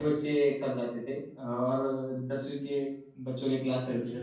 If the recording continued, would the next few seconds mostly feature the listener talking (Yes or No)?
No